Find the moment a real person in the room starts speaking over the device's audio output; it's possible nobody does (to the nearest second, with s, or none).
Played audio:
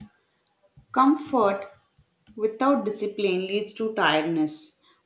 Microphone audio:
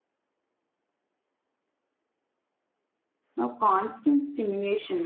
3 s